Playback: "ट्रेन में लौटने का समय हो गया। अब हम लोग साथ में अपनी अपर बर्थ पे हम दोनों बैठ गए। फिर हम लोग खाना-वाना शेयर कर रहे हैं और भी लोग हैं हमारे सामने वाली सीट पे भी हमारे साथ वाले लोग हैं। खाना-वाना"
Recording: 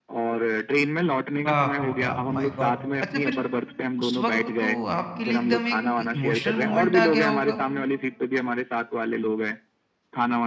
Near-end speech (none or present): present